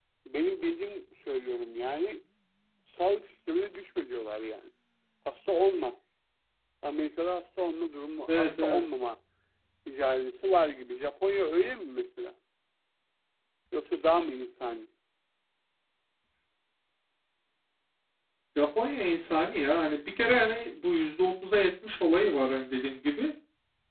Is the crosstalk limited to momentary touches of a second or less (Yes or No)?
Yes